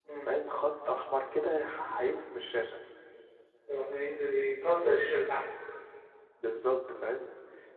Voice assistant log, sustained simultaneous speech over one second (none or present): none